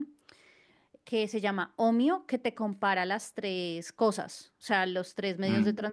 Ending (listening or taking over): listening